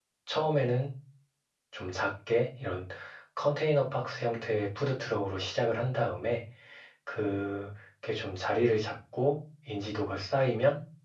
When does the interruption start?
none

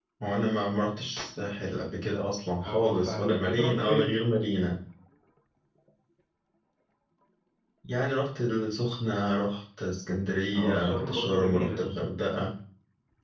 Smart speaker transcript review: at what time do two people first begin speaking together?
2.6 s

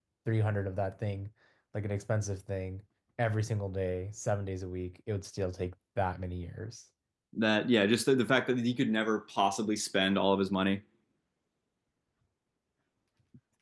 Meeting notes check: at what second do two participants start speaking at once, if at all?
none

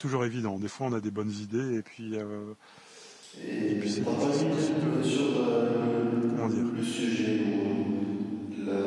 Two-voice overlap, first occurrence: 3.7 s

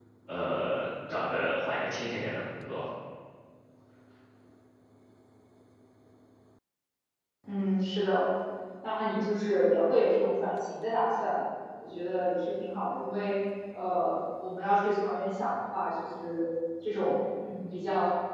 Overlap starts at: none

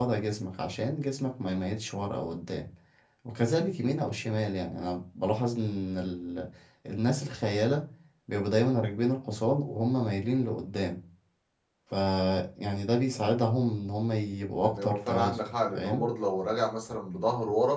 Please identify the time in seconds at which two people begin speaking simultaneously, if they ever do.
14.6 s

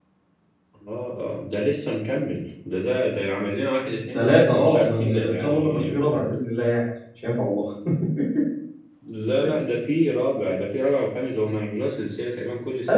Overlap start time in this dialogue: 4.1 s

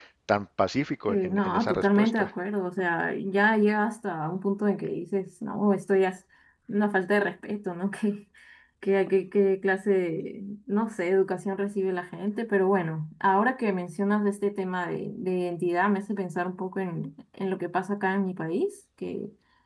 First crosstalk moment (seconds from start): 1.1 s

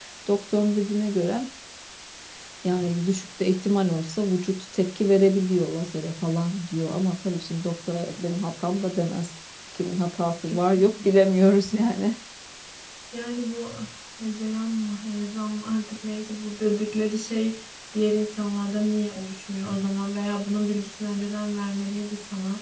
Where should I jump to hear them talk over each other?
none

